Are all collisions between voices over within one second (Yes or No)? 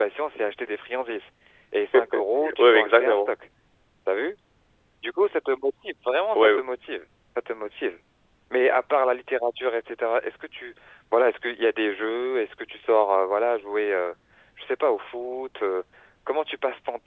No